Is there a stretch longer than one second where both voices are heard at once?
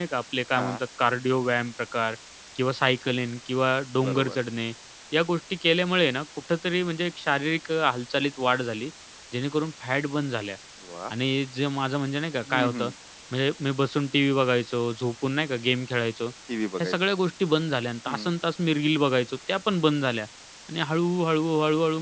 No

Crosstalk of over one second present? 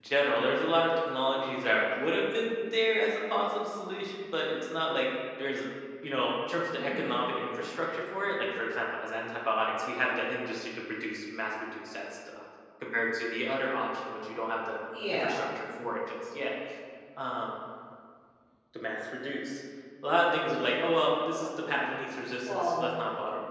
No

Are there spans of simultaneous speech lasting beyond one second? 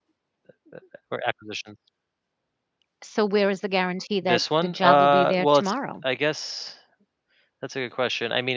Yes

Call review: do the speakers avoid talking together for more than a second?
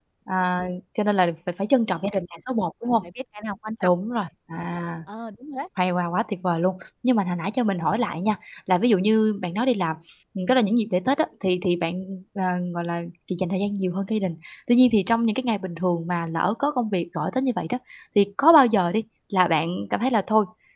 Yes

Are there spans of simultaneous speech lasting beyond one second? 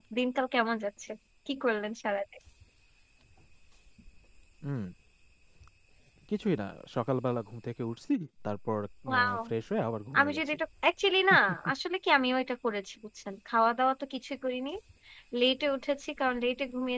No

